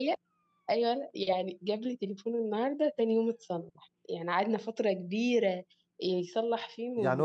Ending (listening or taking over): taking over